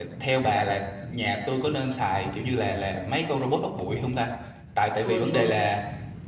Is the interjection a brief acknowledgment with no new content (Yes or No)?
Yes